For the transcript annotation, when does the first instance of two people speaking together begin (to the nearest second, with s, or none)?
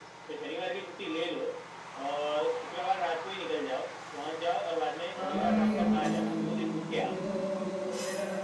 5 s